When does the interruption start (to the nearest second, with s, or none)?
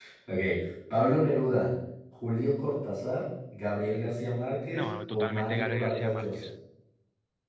5 s